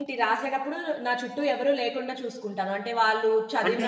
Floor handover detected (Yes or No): No